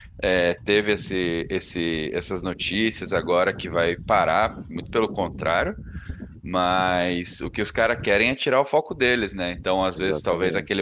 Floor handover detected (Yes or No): No